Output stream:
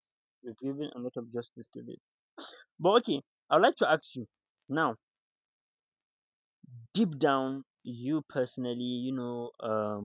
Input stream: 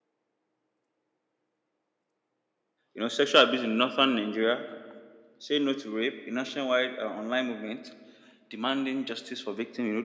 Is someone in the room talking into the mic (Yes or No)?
Yes